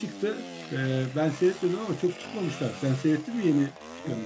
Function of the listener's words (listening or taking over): taking over